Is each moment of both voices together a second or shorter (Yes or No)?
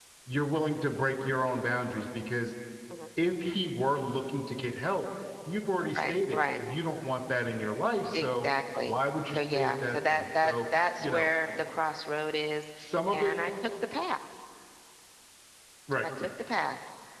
No